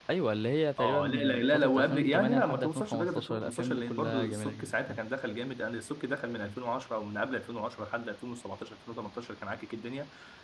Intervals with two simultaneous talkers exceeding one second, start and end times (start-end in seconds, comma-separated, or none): 0.8-5.0